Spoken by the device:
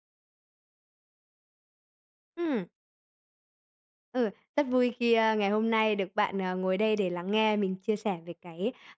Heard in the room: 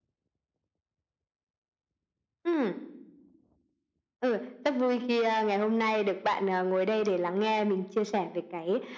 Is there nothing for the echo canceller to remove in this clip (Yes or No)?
No